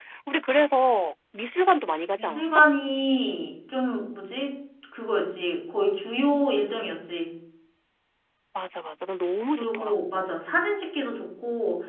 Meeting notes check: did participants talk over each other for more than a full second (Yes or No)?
No